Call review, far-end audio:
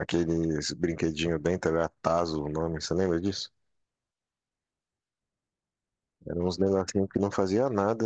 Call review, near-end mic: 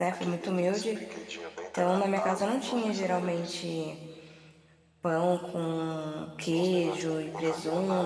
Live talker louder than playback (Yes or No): Yes